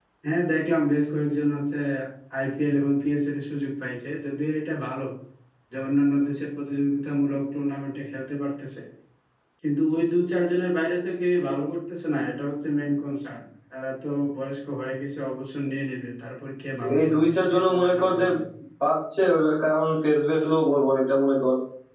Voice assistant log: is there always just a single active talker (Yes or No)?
No